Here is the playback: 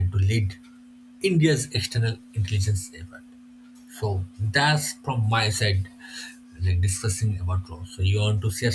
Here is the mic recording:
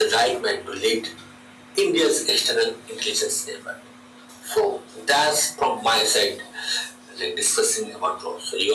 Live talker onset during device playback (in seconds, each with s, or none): none